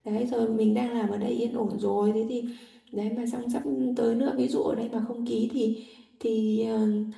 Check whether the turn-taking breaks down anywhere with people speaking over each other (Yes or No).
No